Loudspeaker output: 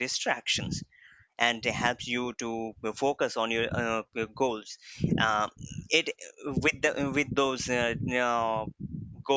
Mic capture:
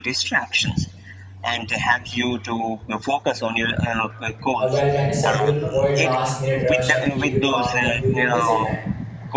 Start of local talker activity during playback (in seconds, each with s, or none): 4.6 s